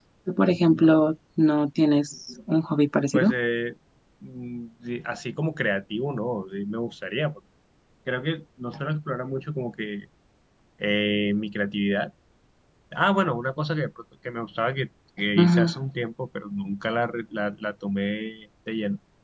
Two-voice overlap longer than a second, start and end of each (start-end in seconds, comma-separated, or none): none